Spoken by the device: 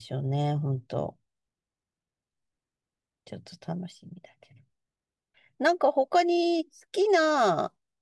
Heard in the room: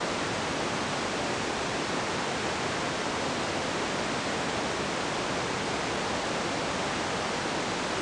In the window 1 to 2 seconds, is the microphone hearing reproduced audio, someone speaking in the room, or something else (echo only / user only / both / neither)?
neither